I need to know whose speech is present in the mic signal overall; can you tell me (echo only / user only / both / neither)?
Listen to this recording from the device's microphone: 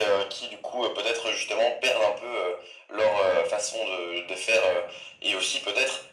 echo only